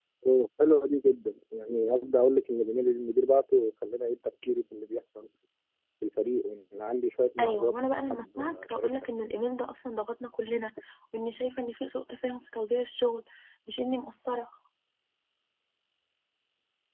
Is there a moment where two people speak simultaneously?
Yes, from 7.4 s

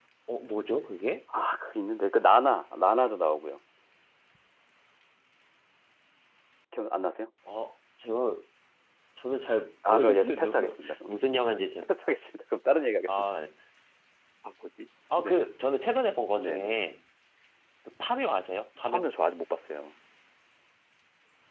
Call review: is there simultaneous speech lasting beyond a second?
Yes, from 9.9 s

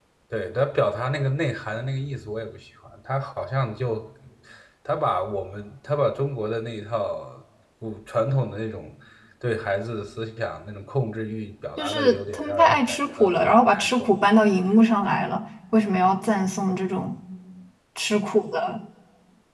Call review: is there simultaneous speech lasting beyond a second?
Yes, from 11.8 s

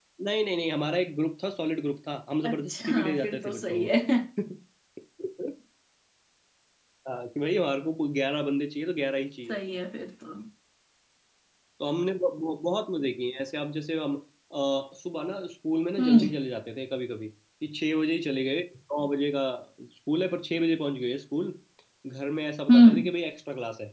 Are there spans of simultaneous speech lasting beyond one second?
Yes, from 2.4 s

